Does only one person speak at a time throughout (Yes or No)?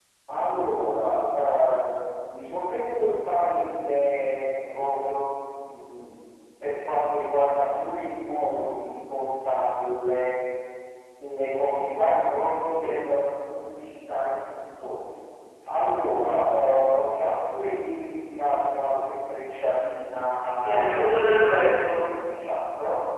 No